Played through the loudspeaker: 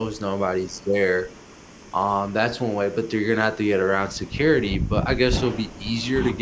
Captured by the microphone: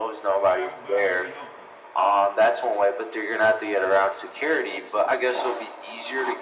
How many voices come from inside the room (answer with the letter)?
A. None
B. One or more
B